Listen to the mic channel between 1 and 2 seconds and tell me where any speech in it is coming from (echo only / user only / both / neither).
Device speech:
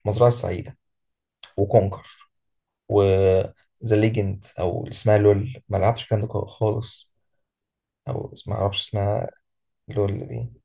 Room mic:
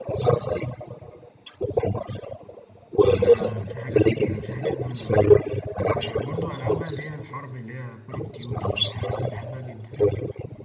echo only